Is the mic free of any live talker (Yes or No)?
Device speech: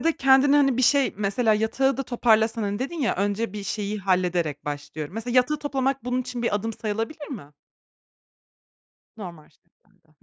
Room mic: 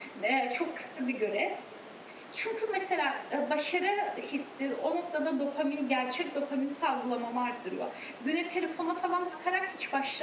No